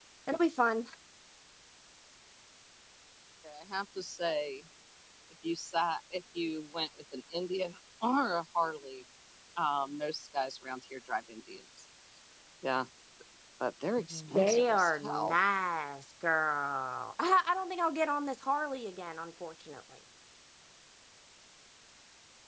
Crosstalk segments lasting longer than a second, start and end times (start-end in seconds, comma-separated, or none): 14.1-15.3